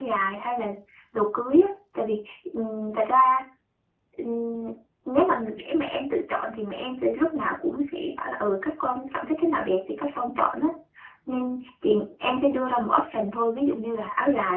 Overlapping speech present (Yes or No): No